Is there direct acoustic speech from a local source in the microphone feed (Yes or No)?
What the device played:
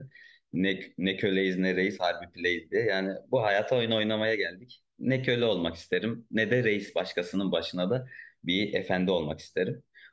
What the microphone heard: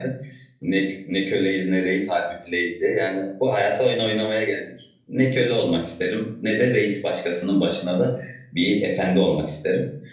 No